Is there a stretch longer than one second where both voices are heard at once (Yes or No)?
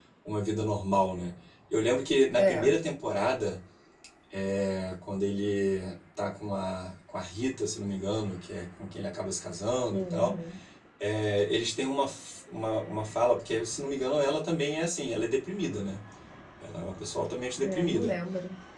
No